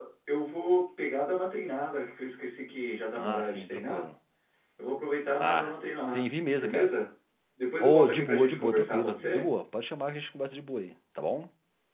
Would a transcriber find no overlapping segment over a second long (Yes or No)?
No